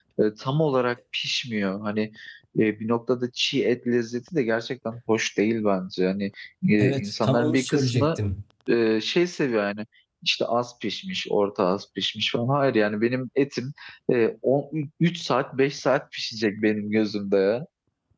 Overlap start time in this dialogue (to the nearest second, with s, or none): 7 s